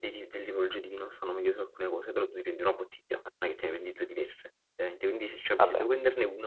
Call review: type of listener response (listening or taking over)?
listening